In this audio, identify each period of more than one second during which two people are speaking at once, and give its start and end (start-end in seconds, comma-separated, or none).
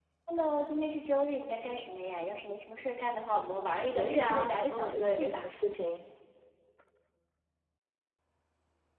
4.0-5.5